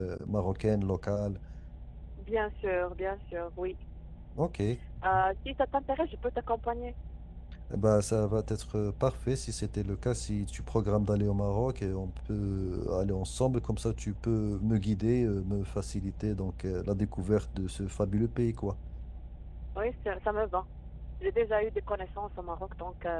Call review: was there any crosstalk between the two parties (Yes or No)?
No